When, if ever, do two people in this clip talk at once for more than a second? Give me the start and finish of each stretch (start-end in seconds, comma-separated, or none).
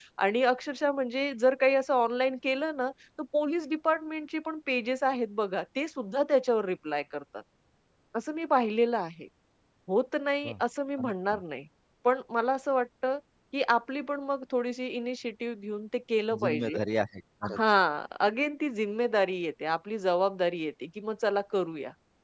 none